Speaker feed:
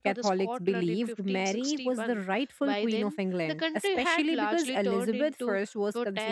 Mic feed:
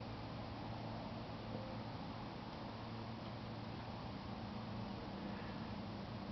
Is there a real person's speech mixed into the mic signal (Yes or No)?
No